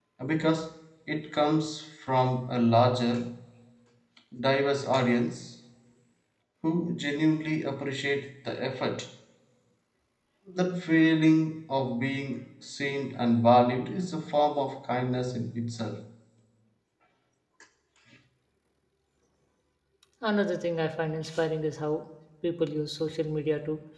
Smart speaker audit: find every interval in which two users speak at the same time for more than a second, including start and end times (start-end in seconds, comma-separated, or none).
none